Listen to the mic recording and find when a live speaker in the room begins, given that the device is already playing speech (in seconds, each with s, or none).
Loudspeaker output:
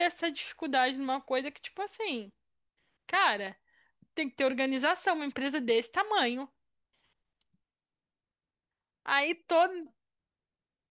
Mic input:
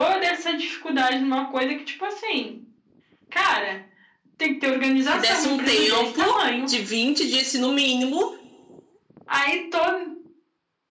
5.1 s